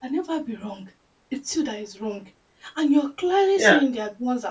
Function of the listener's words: listening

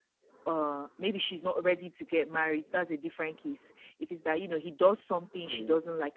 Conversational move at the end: listening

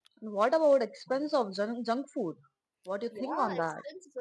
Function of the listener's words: taking over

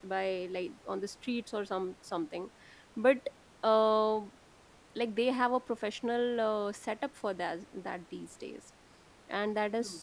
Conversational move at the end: listening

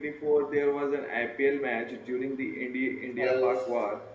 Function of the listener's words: taking over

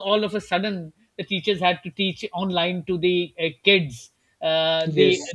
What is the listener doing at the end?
listening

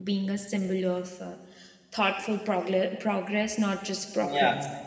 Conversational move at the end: taking over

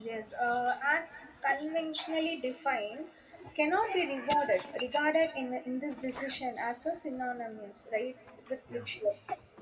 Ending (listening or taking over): listening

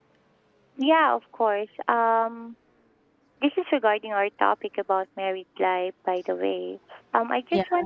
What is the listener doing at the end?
listening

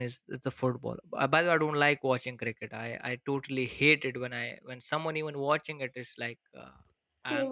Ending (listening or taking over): listening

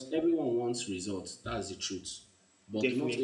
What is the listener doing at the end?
listening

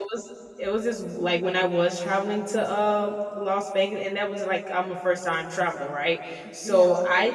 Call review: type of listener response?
listening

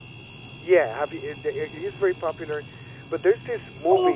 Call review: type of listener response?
taking over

